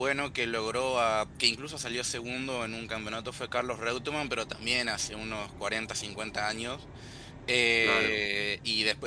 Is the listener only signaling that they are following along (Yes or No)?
Yes